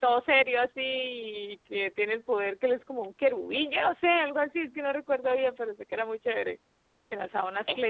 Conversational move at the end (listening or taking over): listening